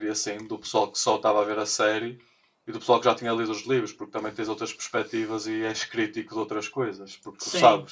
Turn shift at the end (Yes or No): Yes